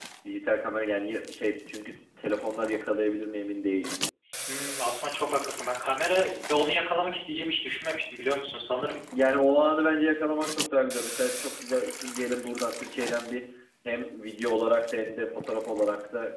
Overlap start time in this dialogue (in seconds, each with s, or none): none